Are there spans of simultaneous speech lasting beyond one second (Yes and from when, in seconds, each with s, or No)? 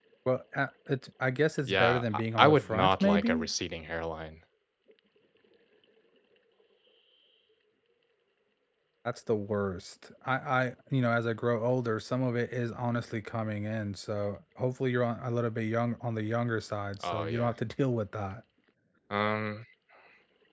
Yes, from 1.6 s